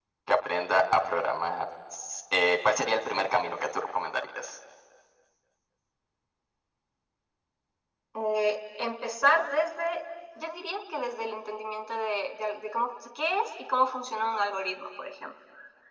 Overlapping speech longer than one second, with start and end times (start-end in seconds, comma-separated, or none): none